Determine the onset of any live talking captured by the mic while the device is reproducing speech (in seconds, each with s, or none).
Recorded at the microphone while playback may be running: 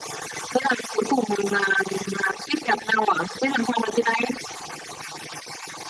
none